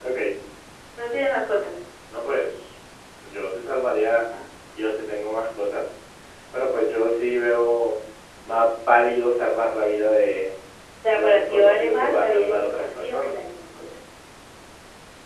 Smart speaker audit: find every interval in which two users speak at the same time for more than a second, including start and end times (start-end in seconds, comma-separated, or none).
11.1-13.3